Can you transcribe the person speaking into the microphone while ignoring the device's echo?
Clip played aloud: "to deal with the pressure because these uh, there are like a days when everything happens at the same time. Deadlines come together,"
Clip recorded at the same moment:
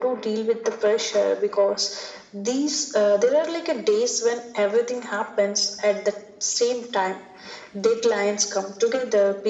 none

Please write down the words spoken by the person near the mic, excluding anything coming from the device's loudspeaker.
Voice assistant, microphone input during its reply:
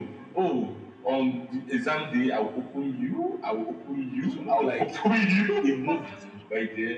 it will look like a movie to you.

